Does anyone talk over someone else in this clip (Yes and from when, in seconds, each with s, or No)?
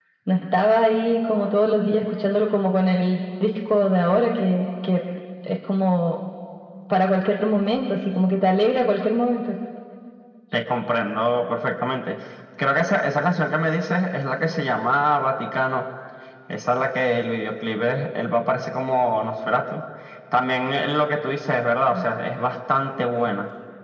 No